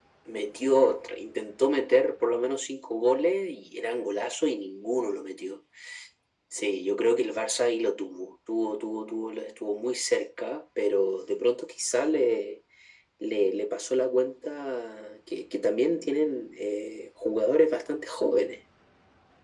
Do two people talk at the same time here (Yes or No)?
No